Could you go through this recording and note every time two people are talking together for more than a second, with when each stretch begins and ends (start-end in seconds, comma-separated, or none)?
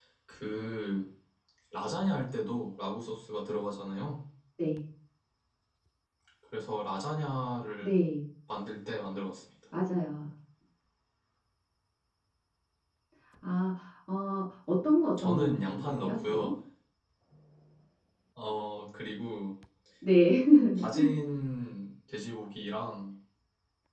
15.2-16.5